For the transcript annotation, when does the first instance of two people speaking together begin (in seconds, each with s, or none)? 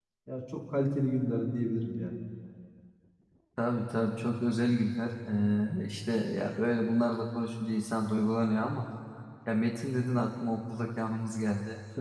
none